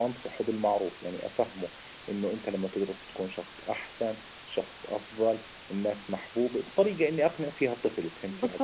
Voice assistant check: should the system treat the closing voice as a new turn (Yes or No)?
Yes